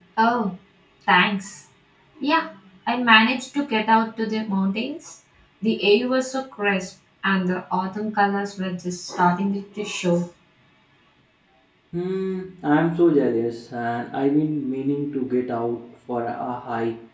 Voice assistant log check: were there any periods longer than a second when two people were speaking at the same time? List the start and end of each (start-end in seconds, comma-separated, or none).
none